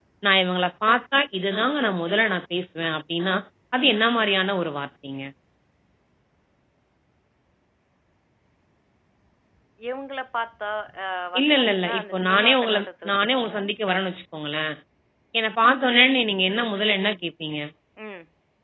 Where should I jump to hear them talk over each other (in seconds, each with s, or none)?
11.4 s